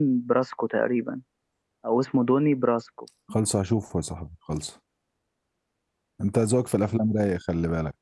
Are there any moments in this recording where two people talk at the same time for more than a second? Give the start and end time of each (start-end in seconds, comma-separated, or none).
none